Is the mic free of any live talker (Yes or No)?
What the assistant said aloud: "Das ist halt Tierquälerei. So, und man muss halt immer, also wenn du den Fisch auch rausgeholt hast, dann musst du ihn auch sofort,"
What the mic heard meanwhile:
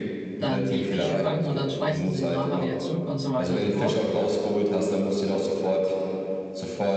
No